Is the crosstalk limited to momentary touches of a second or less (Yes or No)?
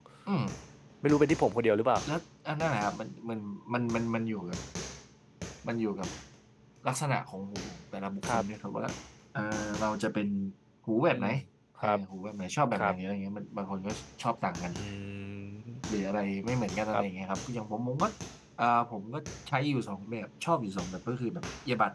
Yes